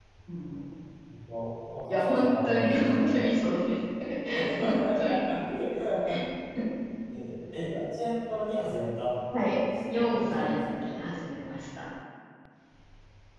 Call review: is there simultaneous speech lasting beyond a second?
Yes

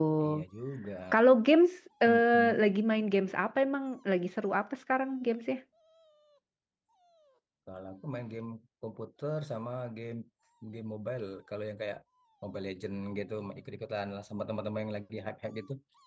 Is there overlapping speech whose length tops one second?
No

